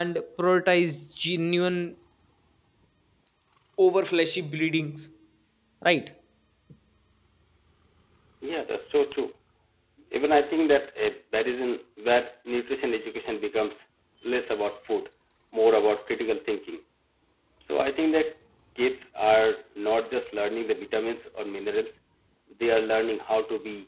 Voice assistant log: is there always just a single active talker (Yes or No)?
Yes